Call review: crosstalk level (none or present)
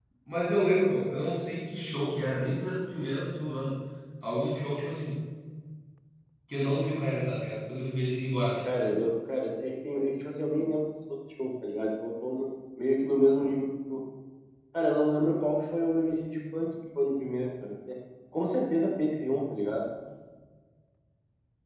none